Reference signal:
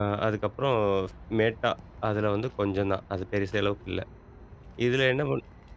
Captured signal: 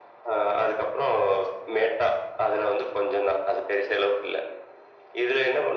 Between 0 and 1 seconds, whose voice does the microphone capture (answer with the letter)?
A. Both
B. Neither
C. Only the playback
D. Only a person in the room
C